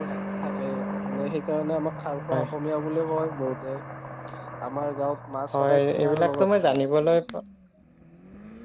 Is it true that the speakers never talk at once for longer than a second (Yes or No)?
No